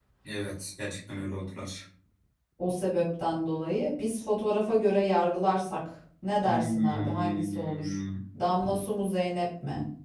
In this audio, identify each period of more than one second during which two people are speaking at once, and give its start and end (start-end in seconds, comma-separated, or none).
6.4-8.0